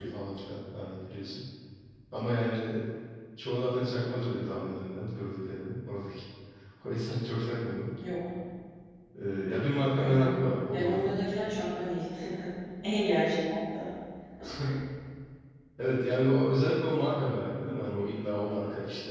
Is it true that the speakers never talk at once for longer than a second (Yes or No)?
Yes